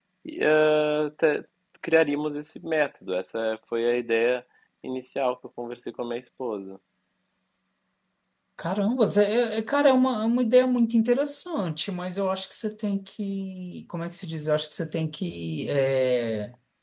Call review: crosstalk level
none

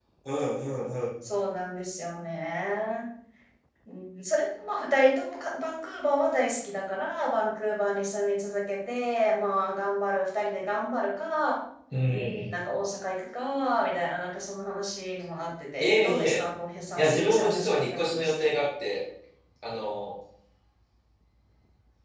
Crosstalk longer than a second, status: present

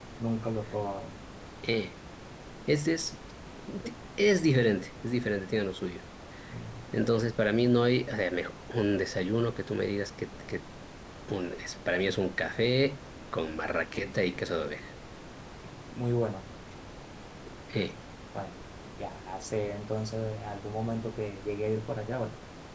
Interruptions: none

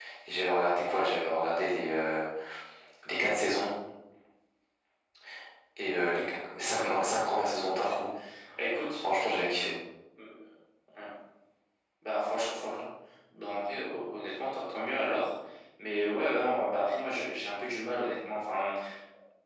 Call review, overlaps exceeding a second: none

